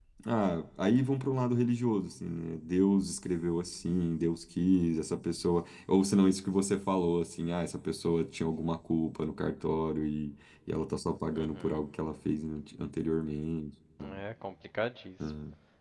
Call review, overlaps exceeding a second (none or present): none